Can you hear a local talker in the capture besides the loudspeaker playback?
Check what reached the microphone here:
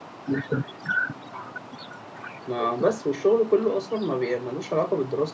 Yes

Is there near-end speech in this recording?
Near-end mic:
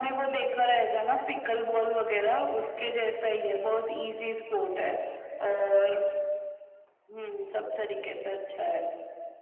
No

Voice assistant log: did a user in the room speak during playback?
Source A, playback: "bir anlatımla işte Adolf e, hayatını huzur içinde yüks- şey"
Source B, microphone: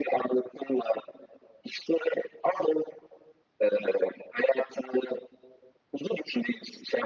No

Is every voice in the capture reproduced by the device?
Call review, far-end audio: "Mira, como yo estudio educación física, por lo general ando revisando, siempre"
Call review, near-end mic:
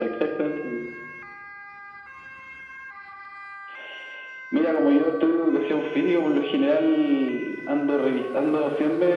Yes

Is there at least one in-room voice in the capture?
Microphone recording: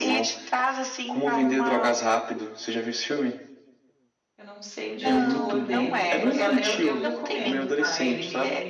Yes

